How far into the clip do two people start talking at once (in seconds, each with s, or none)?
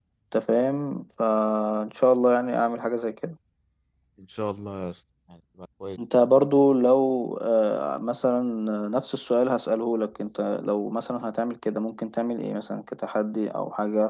none